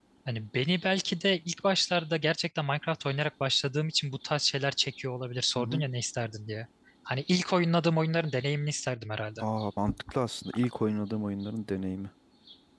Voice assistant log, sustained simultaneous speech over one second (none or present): none